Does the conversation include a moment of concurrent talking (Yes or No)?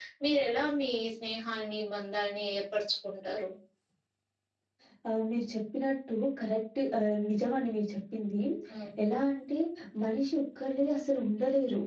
No